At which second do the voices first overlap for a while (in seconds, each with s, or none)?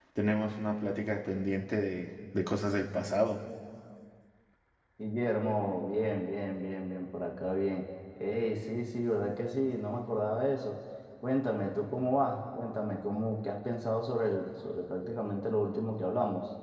none